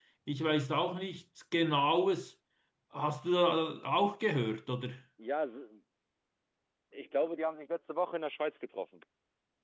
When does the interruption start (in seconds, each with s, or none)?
none